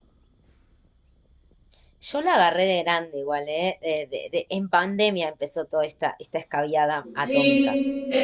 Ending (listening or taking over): taking over